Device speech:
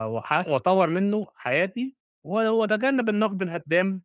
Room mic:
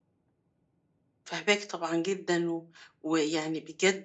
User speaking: Yes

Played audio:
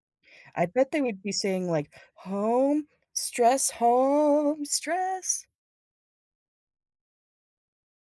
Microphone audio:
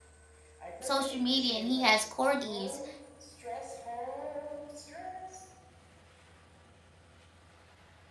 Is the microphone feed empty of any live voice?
No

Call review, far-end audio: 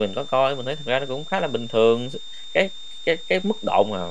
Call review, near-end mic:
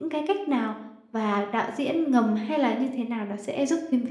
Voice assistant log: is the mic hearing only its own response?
No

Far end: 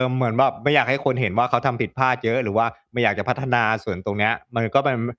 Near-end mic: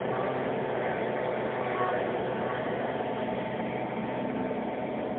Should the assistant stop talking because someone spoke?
No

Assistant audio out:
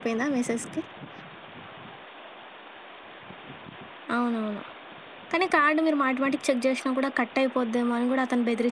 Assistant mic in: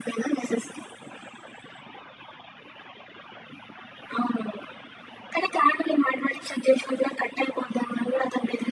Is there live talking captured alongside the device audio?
No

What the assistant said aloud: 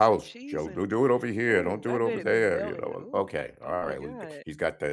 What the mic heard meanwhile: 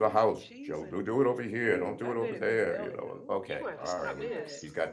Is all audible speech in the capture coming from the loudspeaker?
No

